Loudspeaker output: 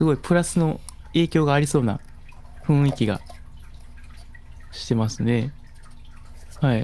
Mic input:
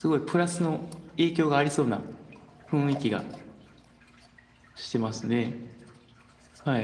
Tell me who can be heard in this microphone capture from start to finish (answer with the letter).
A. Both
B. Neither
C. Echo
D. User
C